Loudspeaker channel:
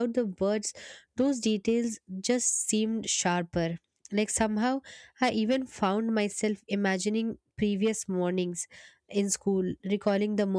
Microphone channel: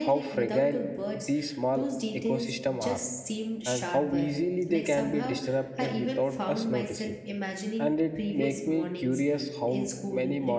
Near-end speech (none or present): present